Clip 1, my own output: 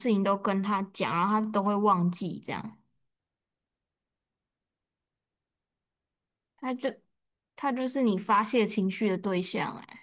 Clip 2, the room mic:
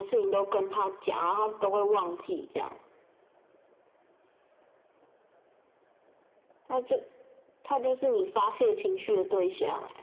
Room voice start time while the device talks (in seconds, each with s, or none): none